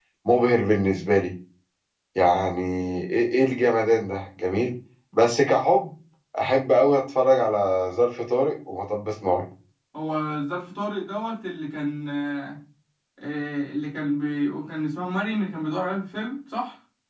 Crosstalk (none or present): none